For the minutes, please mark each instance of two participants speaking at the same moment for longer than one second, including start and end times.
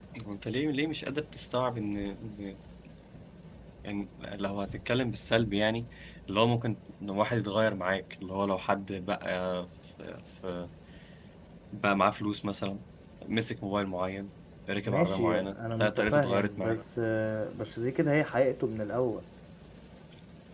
14.8-16.8

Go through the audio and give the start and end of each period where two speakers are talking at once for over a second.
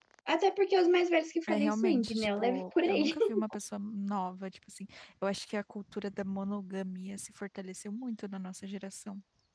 1.5-3.2

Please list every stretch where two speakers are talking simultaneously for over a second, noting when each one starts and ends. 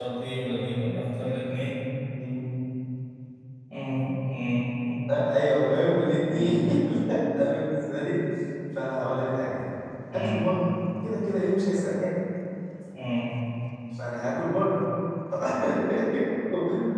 none

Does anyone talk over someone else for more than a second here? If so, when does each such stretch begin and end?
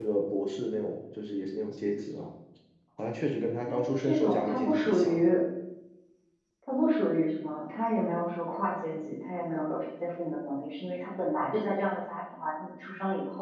3.7-5.2

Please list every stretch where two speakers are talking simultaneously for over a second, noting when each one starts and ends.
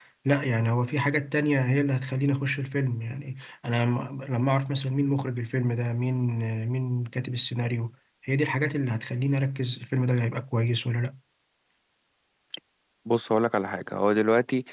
none

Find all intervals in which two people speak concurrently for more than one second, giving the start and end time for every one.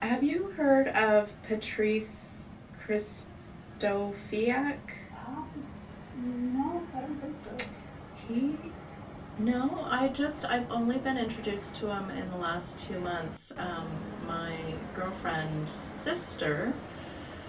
none

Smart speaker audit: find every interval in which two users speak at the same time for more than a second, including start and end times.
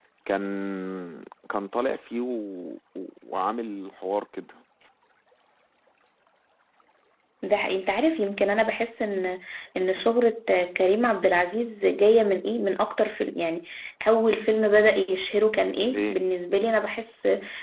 none

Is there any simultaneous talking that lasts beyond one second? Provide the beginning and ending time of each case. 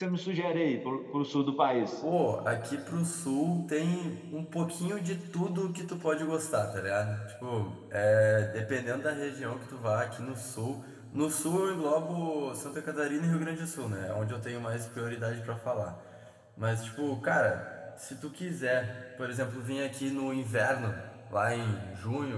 none

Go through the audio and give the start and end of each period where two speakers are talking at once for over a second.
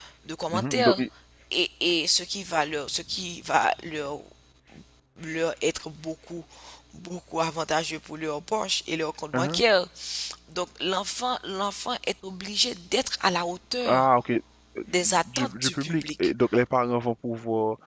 14.9-16.3

